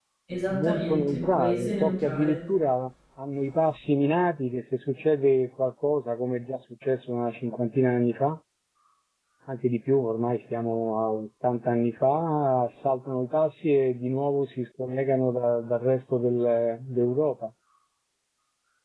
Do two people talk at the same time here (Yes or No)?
Yes